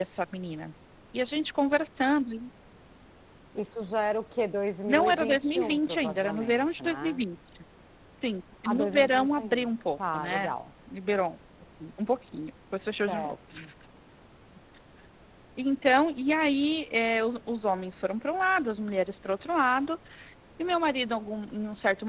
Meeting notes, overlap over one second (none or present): present